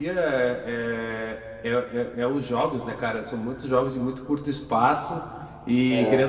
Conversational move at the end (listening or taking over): listening